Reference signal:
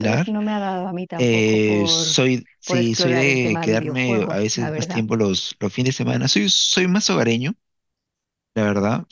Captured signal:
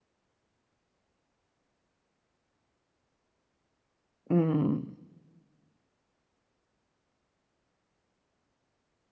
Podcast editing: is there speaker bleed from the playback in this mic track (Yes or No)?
No